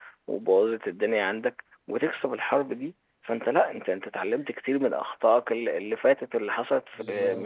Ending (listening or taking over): taking over